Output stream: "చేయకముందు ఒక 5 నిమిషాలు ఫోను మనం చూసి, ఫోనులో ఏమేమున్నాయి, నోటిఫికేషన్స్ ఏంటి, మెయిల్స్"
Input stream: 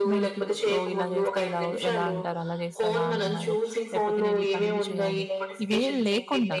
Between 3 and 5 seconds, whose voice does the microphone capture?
both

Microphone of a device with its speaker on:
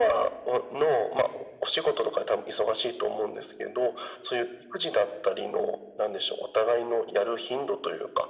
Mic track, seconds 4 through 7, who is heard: echo only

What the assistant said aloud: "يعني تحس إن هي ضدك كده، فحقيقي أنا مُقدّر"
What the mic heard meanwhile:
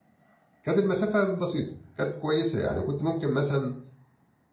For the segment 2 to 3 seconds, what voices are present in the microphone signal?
user only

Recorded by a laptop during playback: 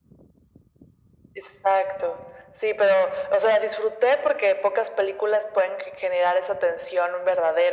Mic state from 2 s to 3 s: echo only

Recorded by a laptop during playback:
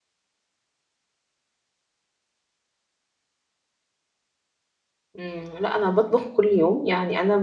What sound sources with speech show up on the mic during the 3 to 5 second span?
neither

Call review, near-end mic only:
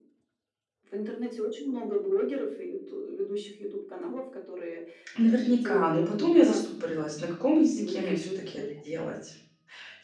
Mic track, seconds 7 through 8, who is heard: both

